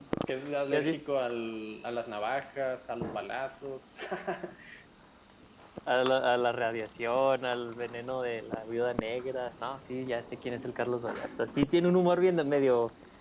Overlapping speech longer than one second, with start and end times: none

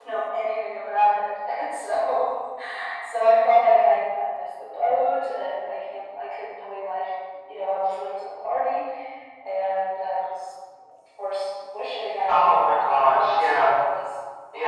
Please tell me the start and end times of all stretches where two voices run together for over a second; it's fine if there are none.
12.3-13.8

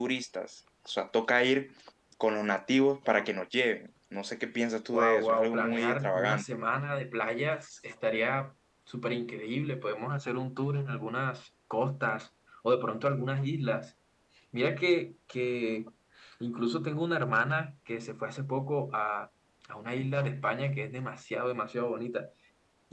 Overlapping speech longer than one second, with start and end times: 4.9-6.4

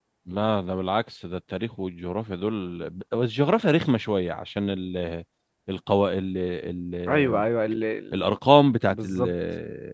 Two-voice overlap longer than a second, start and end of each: none

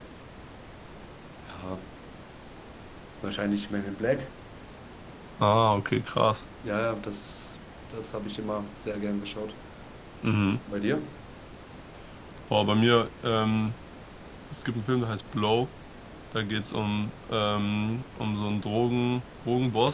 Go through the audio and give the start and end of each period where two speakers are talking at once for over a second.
none

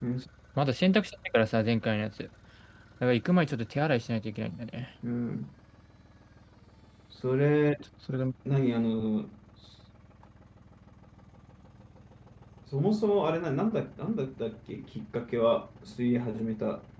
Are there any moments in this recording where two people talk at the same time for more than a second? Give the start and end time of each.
none

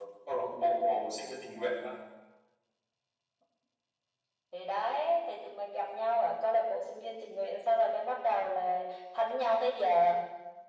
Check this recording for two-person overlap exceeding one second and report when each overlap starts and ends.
none

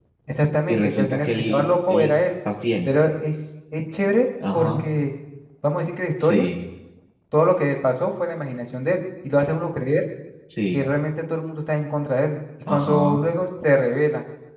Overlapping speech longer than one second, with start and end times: 0.7-2.1

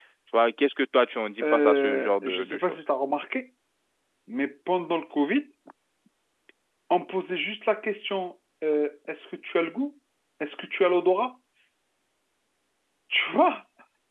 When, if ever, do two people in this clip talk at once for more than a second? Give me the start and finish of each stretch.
1.4-2.8

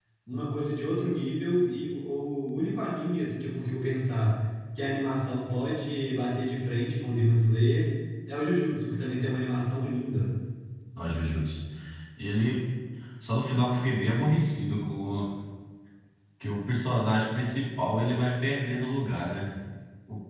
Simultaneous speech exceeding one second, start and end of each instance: none

